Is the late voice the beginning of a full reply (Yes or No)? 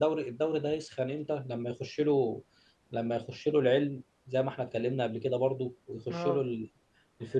No